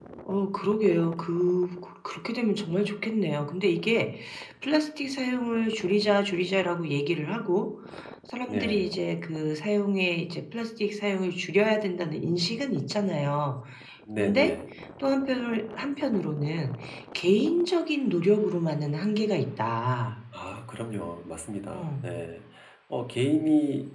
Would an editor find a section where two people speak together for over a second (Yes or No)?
No